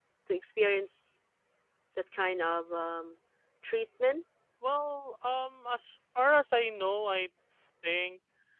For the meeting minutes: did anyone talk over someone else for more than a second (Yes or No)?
No